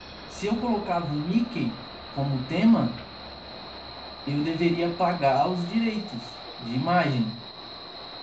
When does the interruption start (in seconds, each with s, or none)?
none